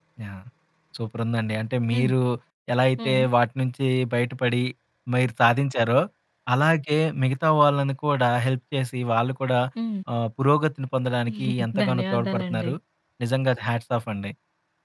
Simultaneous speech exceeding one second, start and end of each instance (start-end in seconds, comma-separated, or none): 11.4-12.7